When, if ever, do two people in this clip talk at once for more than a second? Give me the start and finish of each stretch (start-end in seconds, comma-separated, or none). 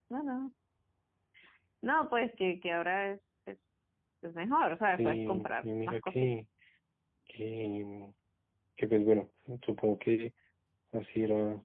4.9-6.4